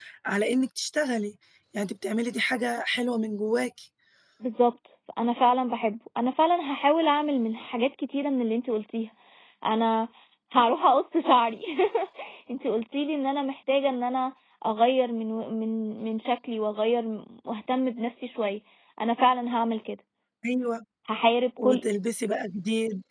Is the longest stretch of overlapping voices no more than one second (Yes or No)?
Yes